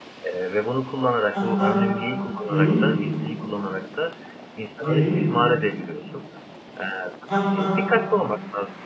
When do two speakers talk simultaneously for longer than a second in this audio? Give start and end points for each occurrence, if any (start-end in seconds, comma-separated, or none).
none